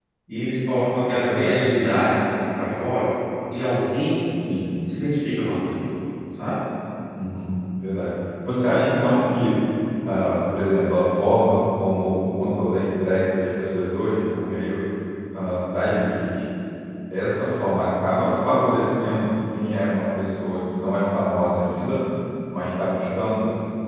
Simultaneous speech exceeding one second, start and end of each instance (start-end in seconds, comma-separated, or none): none